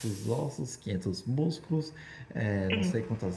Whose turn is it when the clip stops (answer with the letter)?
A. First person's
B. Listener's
A